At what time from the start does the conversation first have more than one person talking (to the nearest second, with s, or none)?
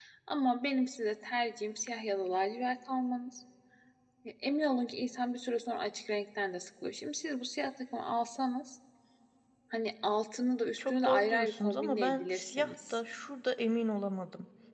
11 s